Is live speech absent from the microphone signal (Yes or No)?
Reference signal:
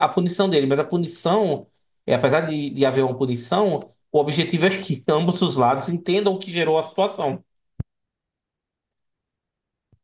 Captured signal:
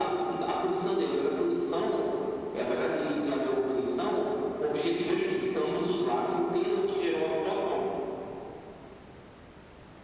Yes